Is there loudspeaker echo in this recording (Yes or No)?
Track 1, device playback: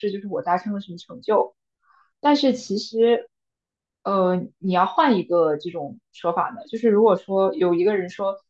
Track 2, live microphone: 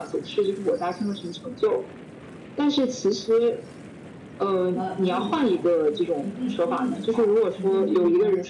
Yes